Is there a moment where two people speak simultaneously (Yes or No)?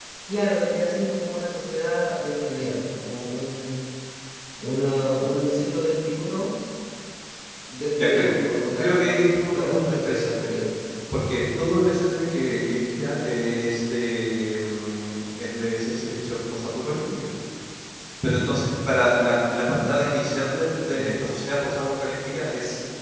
Yes